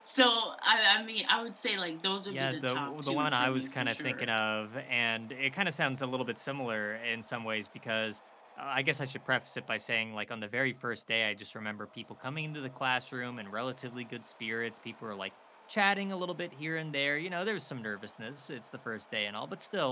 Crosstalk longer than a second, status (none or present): present